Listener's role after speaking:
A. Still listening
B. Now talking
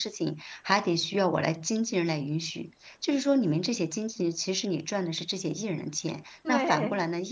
A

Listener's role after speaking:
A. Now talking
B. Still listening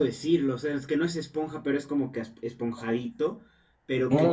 B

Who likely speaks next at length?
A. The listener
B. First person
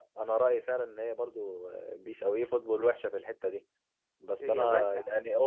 B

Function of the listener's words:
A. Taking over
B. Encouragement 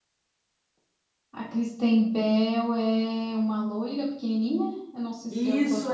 A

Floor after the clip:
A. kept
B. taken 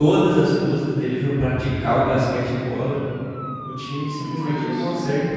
A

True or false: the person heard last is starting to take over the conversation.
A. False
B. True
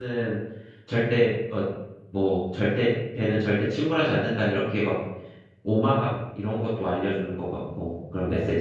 B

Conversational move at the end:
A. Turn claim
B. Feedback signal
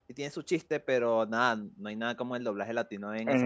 A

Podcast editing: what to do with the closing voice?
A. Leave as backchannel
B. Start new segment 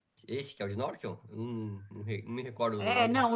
B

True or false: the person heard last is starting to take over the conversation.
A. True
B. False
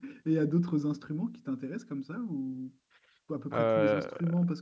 B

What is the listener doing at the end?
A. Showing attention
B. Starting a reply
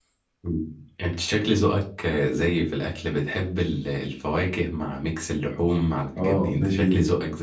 B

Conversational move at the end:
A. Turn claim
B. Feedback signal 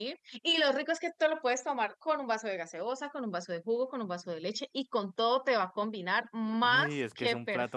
A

